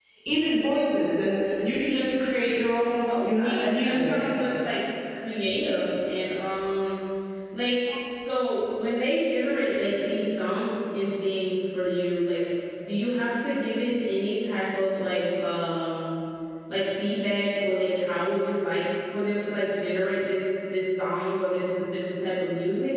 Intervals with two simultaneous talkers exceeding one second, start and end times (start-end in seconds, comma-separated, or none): 3.0-4.3